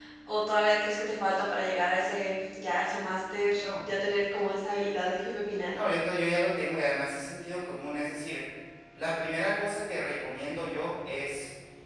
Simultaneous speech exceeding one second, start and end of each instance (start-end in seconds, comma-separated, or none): none